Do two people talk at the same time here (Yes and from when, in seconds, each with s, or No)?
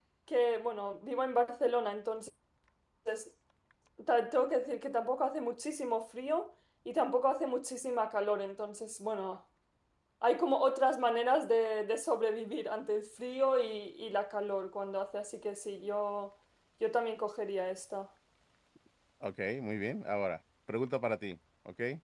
No